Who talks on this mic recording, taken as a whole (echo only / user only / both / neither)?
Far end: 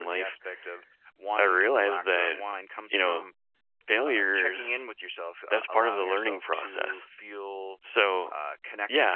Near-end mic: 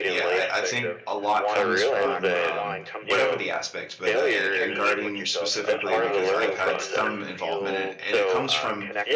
both